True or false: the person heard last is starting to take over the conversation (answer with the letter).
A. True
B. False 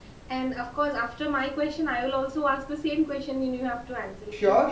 A